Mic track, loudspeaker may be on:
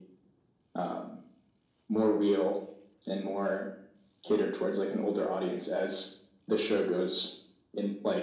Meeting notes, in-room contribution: none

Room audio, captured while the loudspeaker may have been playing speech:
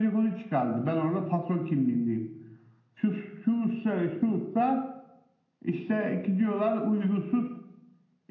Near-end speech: none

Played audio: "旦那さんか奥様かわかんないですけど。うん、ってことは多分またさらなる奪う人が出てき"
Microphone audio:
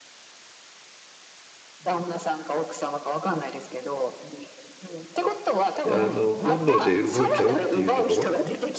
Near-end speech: present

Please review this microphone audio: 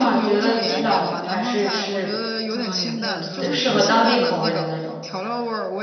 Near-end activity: present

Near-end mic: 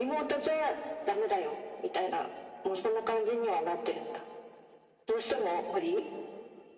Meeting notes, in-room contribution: none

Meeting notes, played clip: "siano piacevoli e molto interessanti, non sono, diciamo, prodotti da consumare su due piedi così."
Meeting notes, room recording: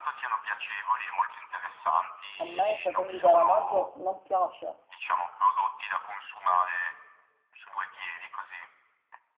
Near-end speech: present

